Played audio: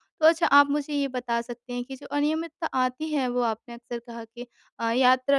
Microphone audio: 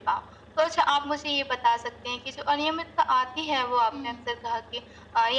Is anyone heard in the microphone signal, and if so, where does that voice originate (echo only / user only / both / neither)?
both